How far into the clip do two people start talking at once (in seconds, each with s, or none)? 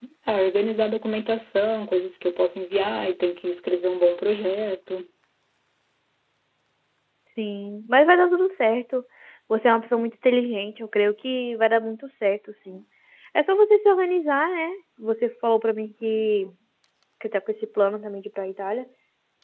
none